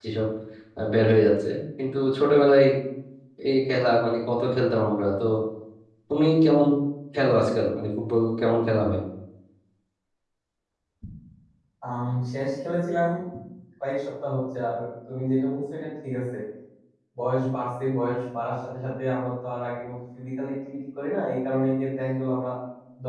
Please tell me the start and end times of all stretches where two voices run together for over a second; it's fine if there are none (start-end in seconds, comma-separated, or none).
none